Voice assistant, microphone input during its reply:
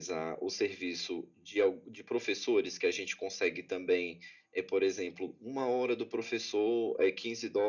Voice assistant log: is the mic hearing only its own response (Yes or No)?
Yes